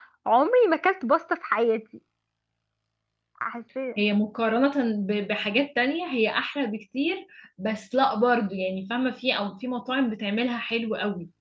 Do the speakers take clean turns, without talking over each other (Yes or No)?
Yes